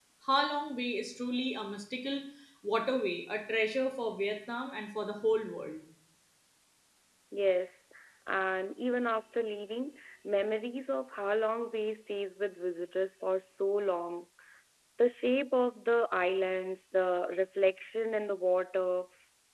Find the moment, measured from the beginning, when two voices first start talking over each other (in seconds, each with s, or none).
none